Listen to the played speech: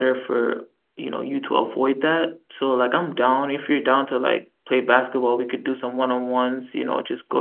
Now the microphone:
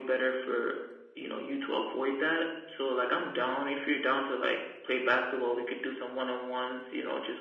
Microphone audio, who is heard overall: echo only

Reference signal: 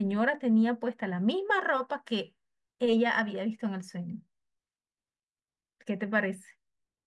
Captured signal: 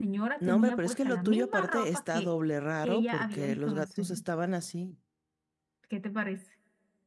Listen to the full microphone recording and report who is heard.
both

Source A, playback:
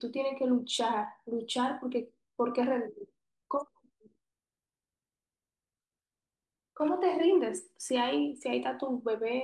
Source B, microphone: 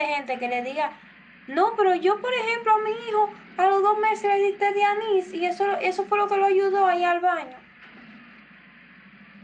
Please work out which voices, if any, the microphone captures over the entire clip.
user only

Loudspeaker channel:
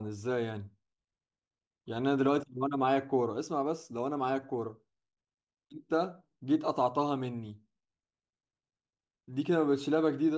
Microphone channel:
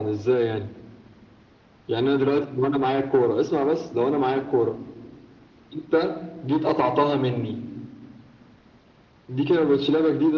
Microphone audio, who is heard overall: echo only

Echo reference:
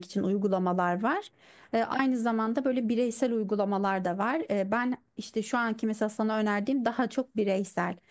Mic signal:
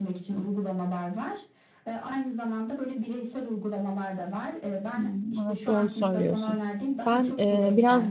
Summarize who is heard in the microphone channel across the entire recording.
both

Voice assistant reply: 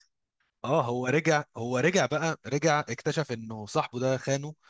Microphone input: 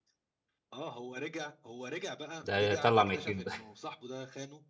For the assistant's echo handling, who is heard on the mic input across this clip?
both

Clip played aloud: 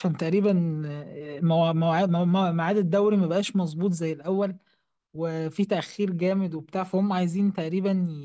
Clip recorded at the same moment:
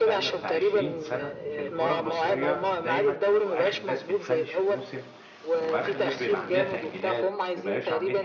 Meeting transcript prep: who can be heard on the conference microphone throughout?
both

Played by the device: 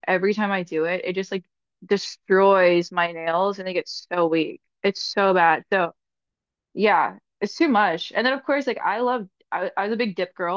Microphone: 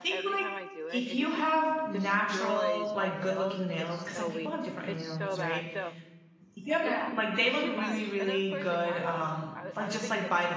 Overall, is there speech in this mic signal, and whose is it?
both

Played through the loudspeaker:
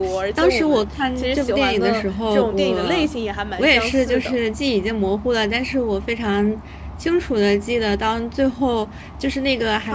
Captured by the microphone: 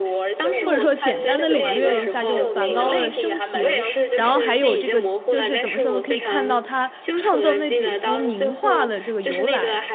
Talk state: both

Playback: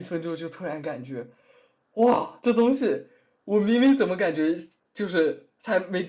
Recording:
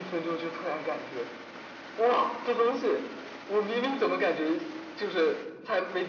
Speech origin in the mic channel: echo only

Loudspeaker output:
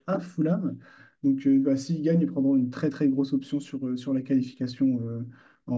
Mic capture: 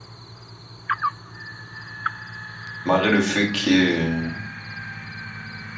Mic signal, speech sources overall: user only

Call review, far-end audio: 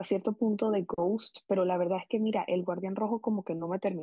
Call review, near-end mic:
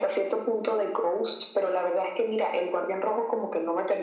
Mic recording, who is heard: echo only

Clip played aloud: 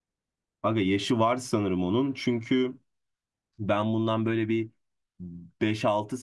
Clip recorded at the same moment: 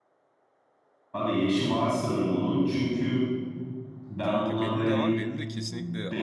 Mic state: both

